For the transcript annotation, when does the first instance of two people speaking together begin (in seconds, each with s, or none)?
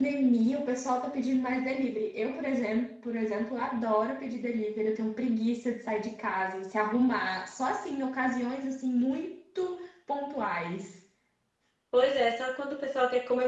none